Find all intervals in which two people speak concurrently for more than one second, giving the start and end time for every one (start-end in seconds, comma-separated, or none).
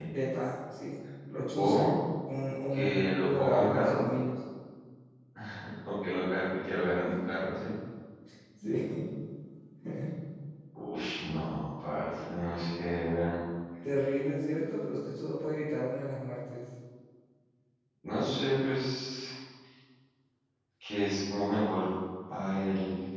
2.7-4.0